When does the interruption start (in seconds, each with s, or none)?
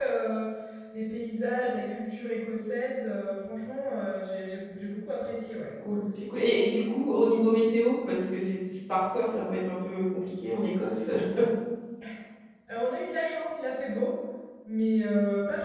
none